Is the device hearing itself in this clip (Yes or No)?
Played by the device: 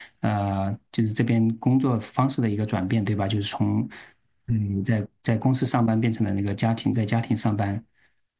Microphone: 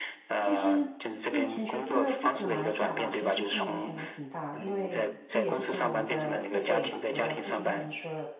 Yes